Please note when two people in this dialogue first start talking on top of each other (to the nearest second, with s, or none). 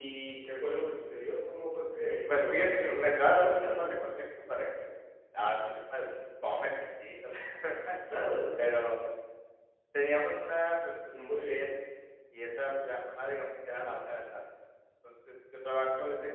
2 s